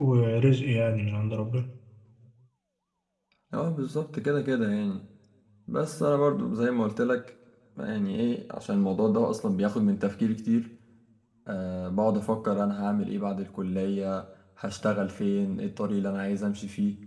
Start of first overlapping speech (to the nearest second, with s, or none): none